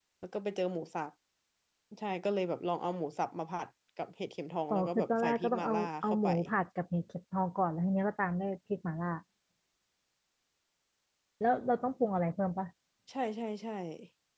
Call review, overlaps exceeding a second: present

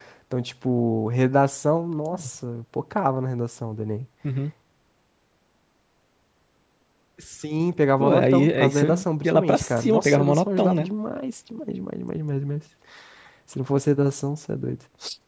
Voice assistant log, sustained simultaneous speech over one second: present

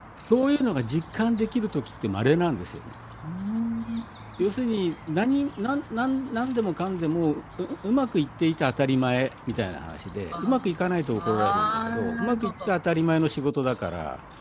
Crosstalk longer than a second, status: present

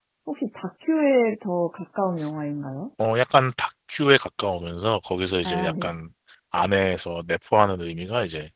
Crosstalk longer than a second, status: none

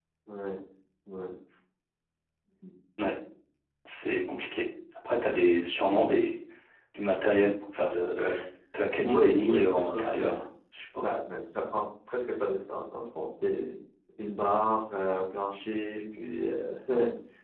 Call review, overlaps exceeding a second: present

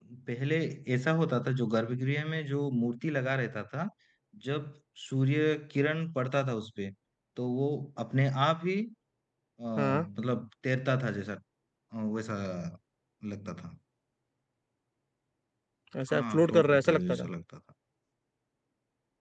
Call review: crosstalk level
present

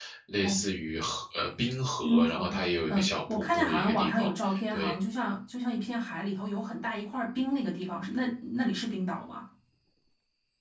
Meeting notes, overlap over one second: present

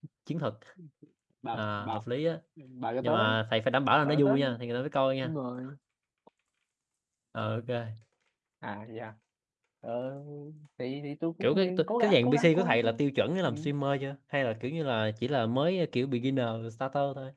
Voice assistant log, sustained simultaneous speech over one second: present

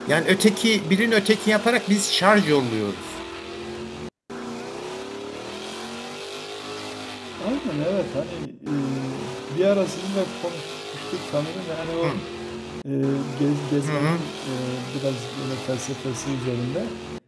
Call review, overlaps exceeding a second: none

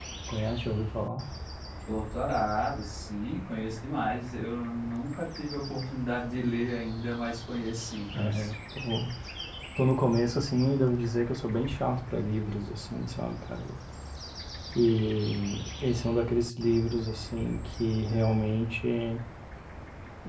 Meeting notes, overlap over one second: none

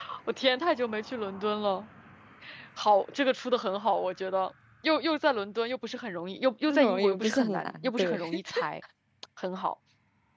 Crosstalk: present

